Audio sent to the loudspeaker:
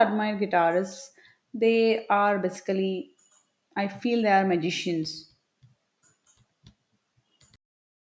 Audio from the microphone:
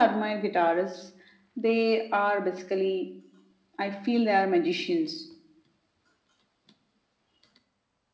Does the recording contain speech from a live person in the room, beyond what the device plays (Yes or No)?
No